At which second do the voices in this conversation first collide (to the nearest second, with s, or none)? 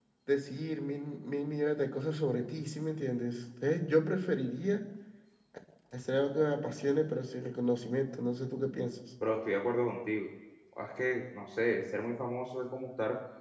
none